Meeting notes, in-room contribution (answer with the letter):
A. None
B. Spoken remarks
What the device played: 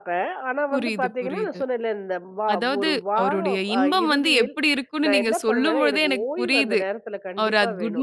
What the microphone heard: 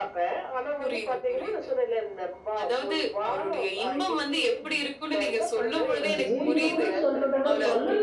B